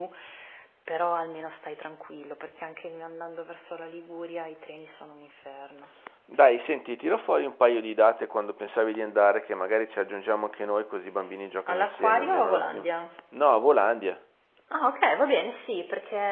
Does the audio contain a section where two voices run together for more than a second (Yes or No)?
Yes